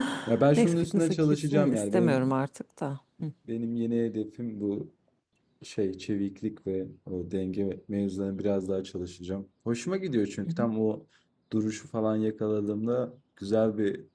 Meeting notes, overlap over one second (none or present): present